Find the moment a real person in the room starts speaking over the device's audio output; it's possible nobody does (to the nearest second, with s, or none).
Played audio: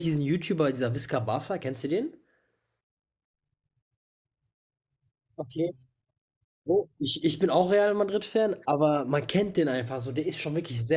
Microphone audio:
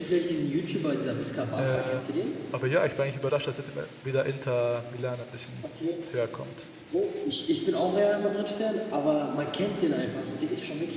2 s